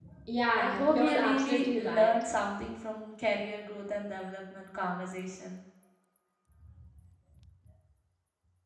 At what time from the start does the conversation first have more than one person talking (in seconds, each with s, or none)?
0.5 s